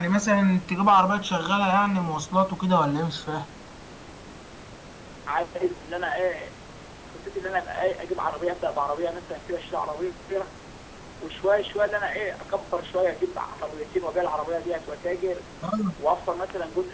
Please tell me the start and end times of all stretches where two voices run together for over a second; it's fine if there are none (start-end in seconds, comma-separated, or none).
none